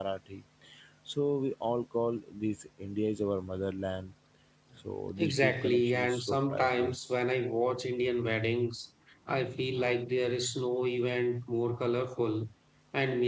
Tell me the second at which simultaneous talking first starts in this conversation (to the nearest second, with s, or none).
5 s